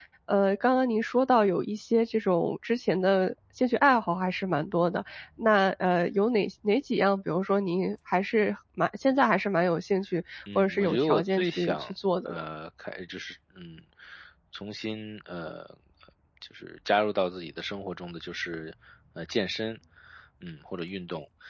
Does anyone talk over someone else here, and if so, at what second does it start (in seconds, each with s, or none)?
10.5 s